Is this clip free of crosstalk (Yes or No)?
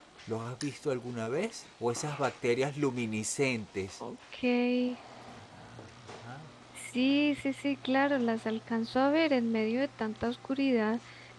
Yes